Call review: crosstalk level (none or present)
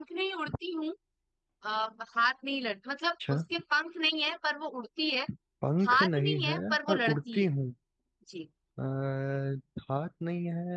present